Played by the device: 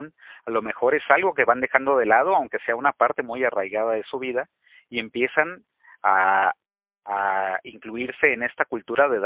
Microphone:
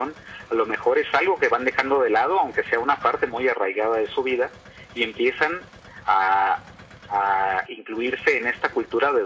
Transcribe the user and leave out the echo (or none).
none